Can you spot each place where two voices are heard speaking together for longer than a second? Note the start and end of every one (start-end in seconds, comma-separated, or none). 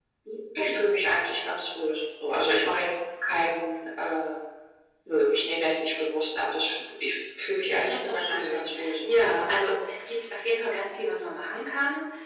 7.7-9.2